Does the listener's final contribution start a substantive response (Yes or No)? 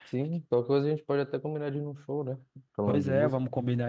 Yes